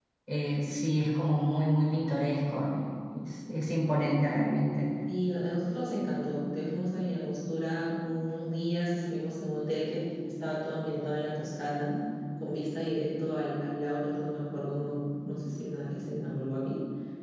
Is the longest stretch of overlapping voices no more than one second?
Yes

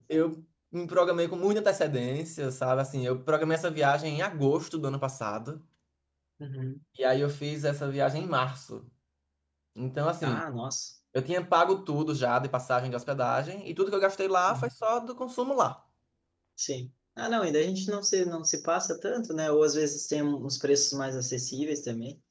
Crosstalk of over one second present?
No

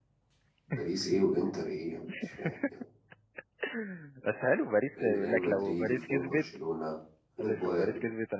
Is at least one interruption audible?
Yes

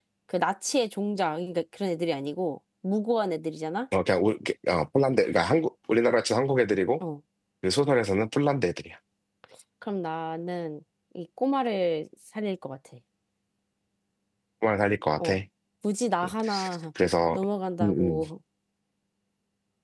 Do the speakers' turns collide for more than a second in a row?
No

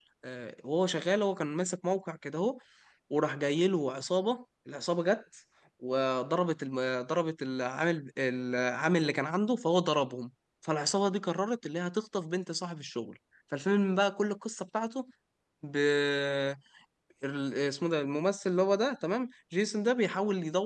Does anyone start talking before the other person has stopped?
No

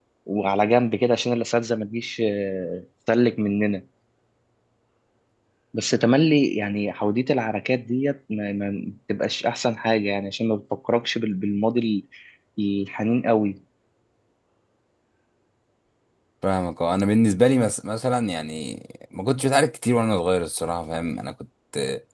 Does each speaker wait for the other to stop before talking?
Yes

